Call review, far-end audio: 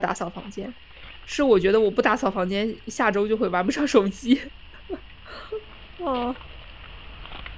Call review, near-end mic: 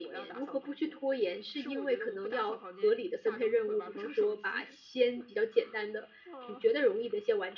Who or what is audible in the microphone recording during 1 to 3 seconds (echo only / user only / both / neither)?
both